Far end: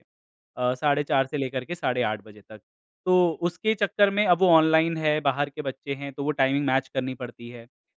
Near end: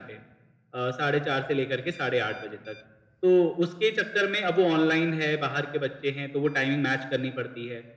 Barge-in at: none

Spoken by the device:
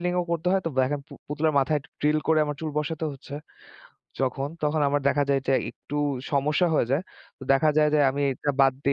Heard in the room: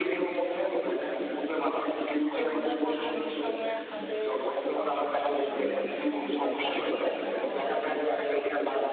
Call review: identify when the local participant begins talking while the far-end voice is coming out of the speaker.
2.4 s

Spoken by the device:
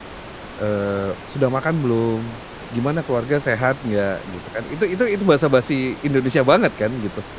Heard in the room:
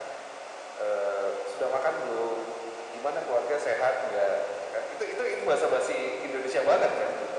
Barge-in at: none

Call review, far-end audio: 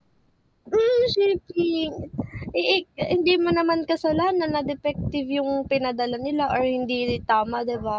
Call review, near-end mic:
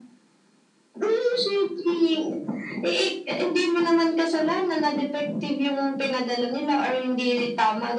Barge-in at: none

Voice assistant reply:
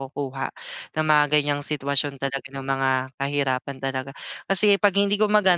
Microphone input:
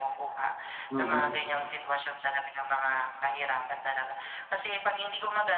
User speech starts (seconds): 0.9 s

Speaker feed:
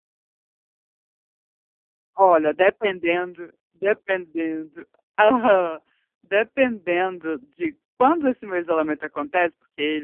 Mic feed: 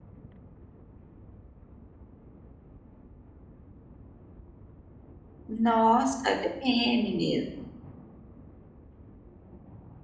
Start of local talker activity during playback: 5.5 s

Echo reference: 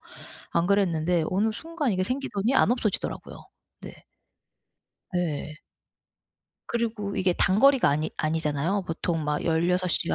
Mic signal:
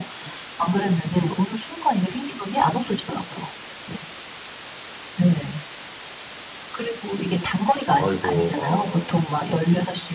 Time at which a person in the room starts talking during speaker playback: 8.0 s

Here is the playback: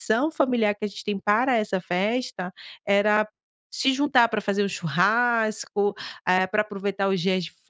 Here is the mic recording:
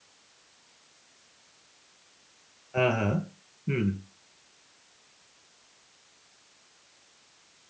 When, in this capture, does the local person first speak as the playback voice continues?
2.7 s

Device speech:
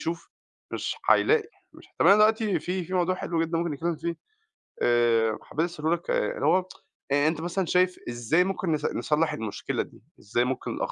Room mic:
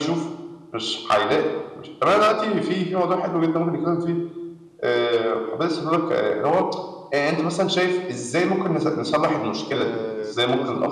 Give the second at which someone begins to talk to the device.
9.7 s

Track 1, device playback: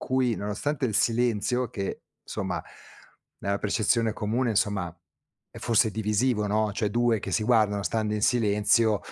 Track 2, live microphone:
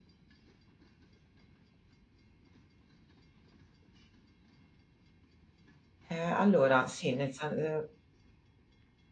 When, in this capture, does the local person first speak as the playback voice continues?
6.1 s

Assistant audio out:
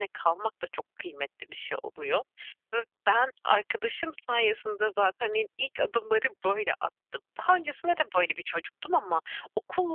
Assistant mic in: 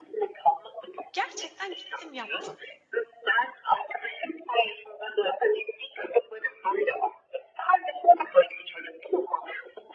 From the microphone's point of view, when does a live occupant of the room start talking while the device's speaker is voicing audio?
1.1 s

